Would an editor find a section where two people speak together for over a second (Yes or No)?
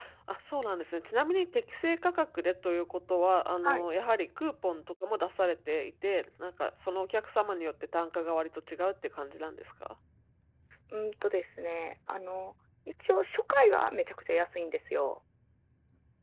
No